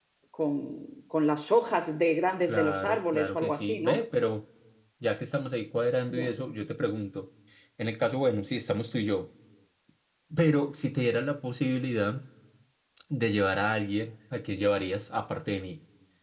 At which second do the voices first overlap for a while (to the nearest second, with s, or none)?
2 s